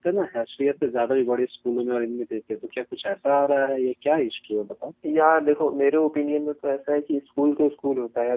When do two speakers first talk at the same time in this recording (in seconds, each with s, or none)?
none